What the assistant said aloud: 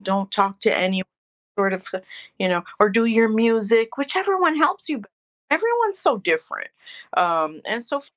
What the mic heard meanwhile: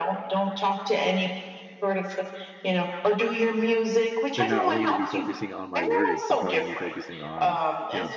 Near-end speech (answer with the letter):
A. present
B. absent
A